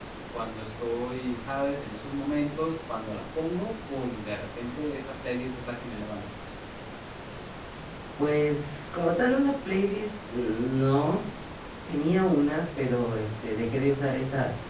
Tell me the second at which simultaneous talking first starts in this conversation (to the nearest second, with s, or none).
none